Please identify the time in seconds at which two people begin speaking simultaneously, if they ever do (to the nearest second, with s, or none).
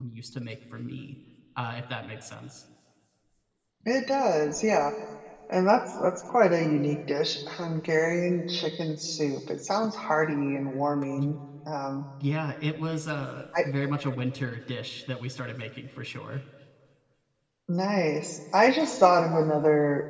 none